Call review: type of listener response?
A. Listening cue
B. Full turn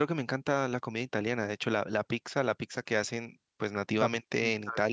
B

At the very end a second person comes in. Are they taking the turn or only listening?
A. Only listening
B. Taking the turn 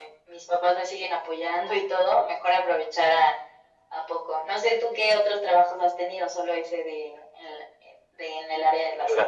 B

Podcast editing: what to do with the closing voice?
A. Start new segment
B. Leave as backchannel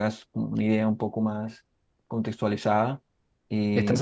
A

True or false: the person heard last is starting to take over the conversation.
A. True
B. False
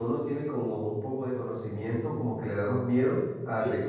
B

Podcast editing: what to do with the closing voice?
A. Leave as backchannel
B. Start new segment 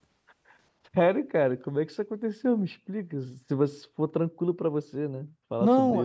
B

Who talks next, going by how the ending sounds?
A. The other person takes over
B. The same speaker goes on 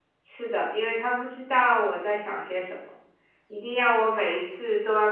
B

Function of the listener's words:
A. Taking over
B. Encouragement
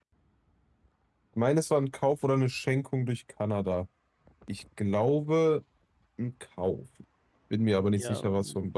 A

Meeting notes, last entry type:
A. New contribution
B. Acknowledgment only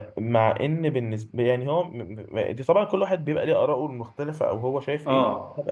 A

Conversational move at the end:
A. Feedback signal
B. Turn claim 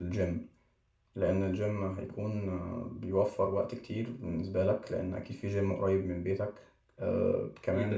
A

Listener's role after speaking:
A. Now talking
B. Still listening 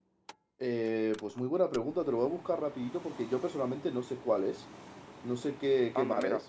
A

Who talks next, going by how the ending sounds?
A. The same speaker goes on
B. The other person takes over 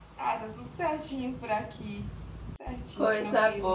B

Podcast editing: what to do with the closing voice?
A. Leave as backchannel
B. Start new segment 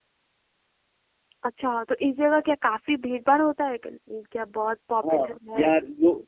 B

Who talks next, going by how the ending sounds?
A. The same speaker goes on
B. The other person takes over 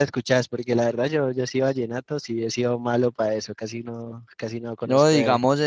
B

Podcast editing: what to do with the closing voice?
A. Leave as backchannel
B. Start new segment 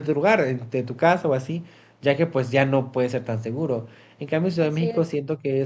A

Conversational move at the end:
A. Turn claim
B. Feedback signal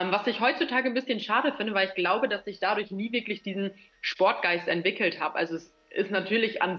B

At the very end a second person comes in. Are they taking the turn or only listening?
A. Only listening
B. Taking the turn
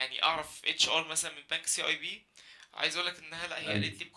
A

